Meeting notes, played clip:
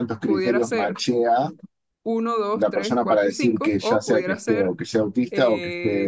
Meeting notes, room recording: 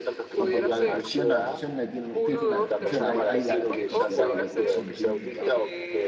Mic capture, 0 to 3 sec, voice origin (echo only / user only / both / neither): both